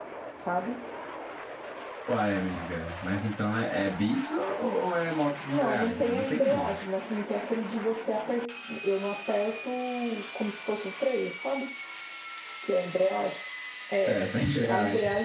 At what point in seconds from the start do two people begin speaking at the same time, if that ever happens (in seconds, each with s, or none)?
5.5 s